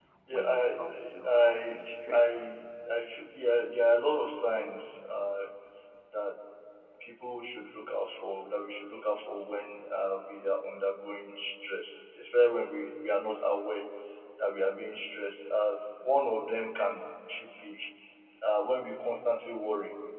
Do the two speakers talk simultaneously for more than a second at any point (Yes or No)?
Yes